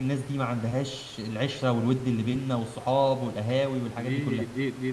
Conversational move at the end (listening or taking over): taking over